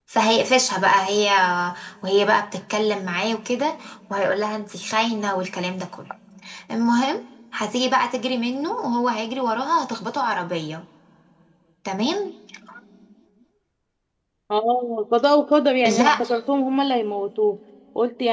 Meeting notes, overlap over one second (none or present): none